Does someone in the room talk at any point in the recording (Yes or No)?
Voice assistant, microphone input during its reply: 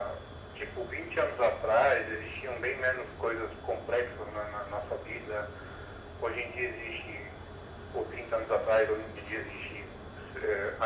No